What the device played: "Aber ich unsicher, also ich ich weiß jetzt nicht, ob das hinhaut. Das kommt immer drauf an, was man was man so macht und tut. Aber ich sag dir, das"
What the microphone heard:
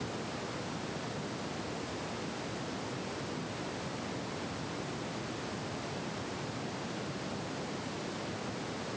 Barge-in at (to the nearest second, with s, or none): none